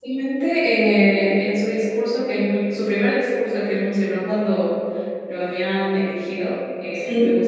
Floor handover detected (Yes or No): No